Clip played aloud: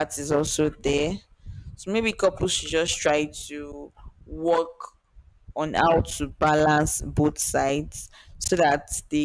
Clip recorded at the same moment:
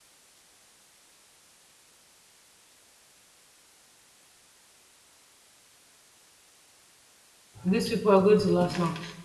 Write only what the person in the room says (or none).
these people are going to last long.